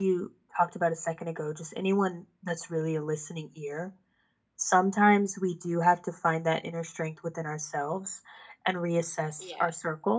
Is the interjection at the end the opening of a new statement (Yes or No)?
No